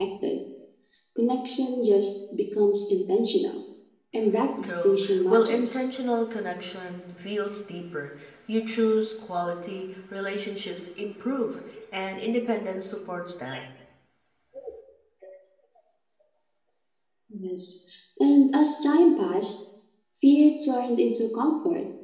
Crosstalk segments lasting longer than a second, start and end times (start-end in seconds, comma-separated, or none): 4.6-5.9